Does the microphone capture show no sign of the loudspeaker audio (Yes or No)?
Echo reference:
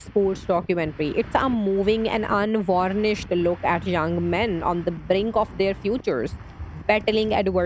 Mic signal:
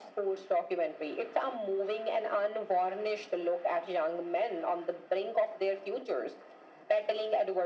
No